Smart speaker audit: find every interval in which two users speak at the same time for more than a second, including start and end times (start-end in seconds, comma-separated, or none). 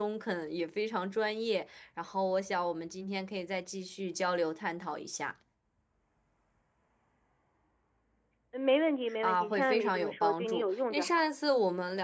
9.2-11.3